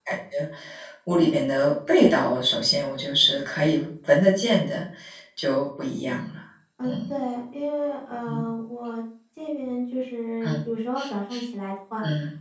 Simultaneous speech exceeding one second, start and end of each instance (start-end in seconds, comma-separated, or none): none